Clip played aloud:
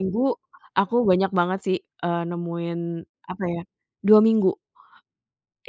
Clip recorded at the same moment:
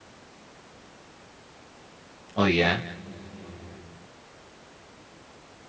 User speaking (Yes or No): Yes